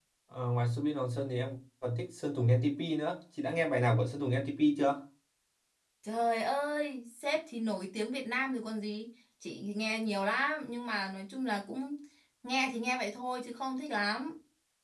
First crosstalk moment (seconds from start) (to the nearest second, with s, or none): none